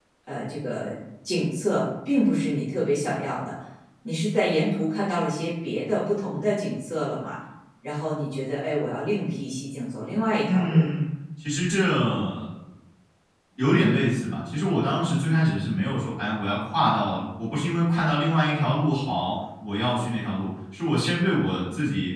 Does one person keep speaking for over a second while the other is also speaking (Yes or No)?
No